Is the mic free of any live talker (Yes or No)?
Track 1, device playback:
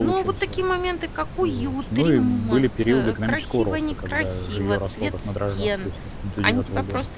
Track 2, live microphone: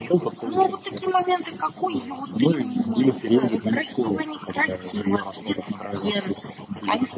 Yes